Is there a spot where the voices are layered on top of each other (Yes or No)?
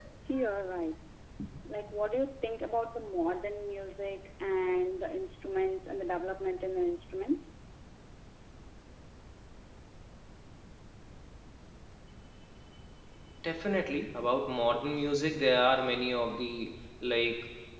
No